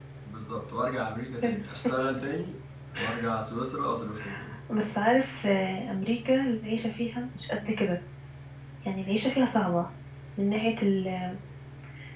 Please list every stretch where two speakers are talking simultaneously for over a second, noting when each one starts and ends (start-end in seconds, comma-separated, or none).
none